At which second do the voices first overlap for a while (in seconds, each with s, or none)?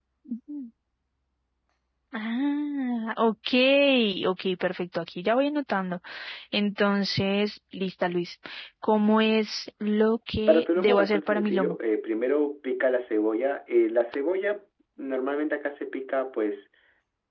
10.5 s